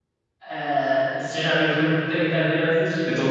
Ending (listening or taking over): taking over